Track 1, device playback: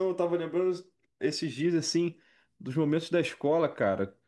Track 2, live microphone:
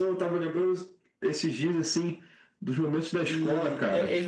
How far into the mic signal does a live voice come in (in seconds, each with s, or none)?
3.2 s